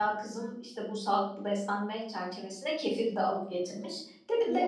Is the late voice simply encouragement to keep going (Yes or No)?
Yes